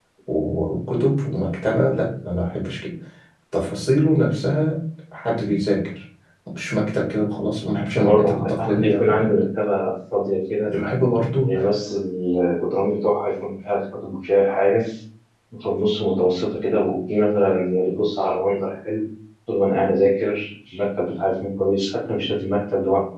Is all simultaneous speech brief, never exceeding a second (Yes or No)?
No